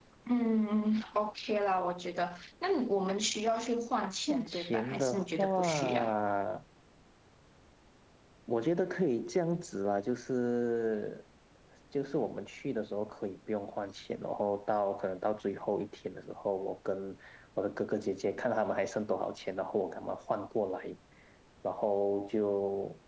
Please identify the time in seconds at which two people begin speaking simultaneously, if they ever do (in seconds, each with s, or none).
4.3 s